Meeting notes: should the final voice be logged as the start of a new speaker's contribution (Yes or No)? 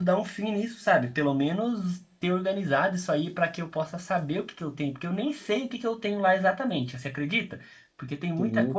No